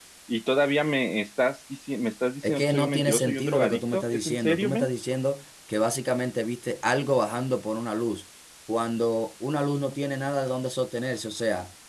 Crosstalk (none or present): present